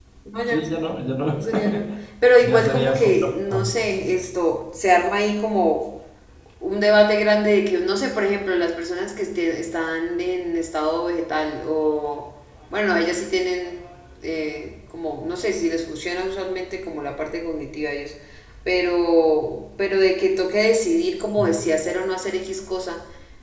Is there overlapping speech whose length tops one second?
Yes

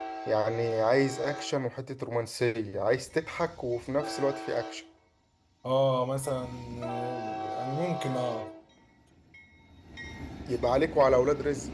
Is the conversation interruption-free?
Yes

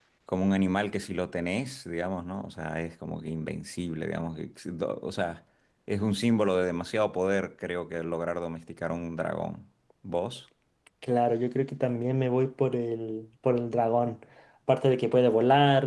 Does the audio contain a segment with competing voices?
No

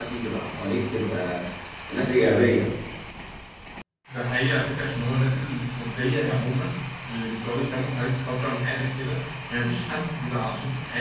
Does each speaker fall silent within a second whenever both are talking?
Yes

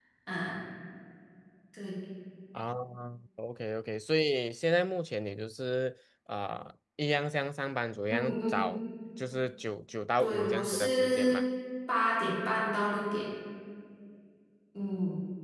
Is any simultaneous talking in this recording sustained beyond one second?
Yes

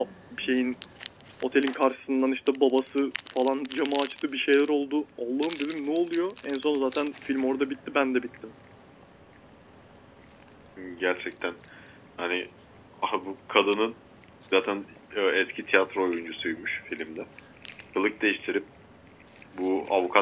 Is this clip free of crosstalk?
Yes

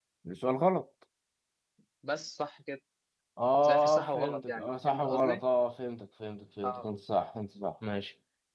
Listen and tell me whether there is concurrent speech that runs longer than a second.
Yes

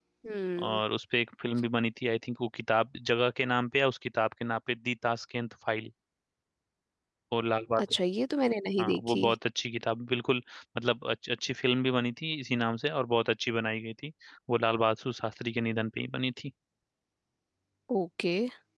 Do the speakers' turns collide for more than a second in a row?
No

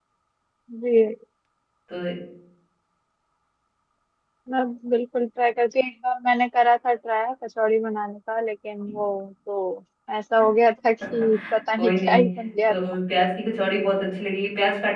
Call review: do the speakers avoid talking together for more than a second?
Yes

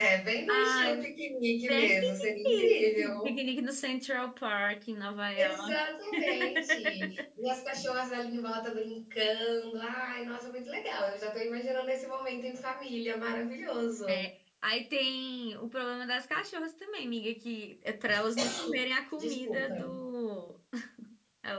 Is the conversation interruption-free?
No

